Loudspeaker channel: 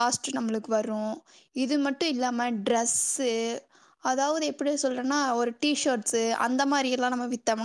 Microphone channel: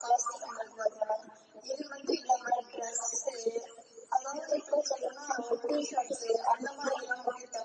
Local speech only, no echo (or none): none